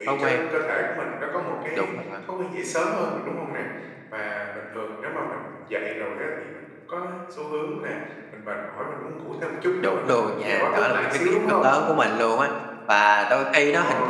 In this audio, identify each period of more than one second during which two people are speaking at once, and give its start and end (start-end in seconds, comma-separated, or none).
9.8-11.7